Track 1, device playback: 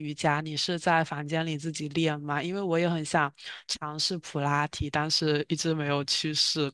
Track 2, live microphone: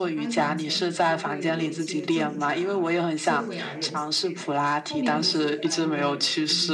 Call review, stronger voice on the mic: echo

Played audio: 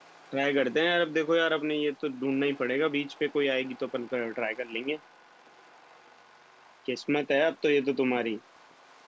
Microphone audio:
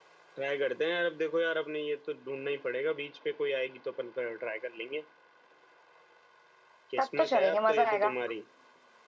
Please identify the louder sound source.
user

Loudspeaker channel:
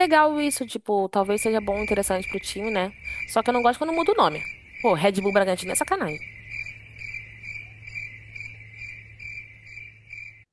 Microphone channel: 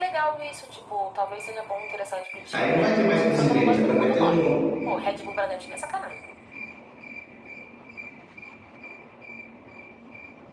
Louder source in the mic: user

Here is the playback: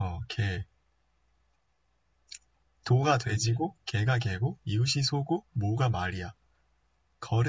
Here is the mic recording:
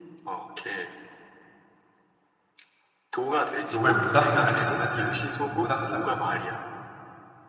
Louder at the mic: user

